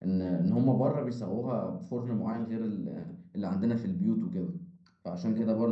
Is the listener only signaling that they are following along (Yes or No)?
Yes